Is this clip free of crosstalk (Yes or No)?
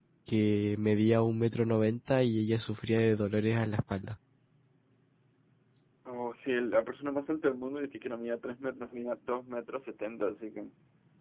Yes